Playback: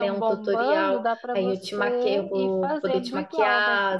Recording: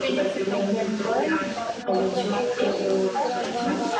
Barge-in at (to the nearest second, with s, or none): 2 s